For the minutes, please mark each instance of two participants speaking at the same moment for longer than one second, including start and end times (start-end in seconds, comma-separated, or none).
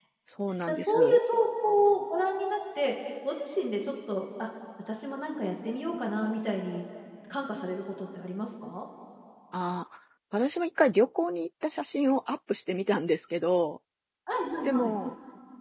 none